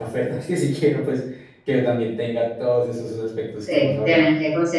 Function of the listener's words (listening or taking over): taking over